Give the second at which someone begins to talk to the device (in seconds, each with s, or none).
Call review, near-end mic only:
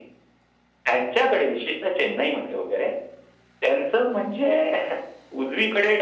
none